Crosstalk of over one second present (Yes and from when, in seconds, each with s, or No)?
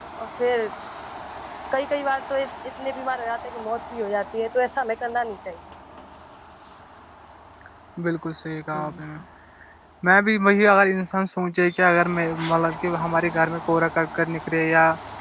No